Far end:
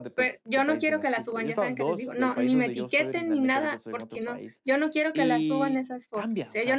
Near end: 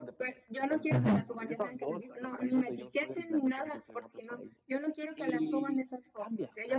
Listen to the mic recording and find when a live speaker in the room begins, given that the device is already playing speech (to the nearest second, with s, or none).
1 s